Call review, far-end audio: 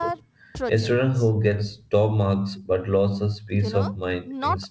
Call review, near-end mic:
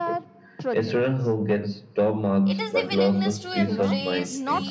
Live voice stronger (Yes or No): No